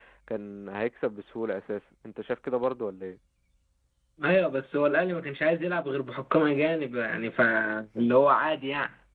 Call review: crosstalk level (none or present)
none